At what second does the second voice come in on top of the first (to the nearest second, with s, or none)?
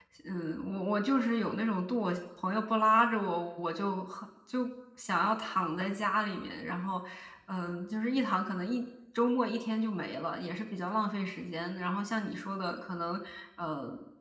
none